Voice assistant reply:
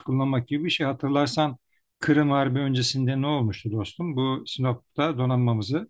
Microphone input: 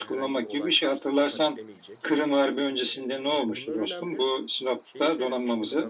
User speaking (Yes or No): Yes